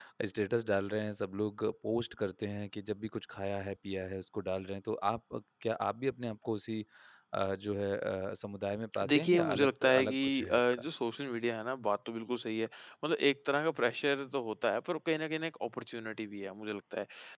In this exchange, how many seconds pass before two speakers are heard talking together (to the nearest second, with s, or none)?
9 s